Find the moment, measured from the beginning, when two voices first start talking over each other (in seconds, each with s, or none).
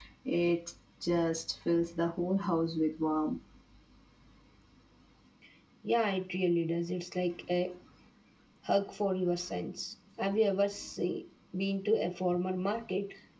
none